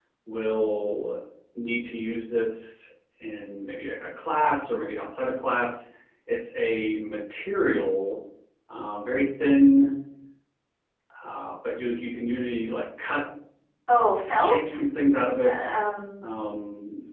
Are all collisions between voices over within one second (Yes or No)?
Yes